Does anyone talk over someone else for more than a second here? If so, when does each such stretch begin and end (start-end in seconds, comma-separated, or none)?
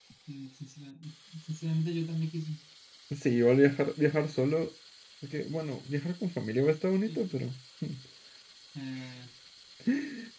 none